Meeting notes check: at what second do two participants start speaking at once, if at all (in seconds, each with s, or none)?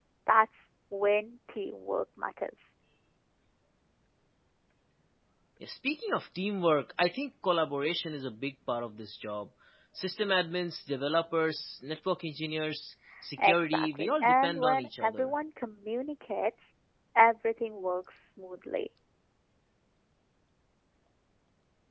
13.4 s